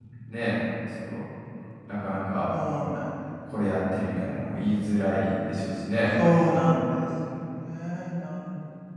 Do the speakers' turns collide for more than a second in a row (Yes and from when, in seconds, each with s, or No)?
No